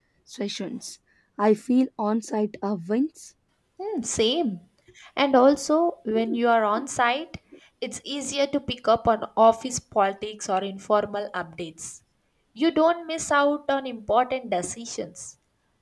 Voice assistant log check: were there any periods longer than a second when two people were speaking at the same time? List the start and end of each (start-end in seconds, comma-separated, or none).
none